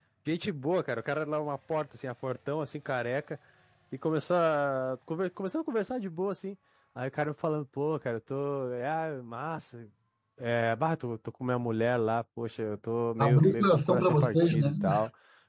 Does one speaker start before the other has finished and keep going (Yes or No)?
Yes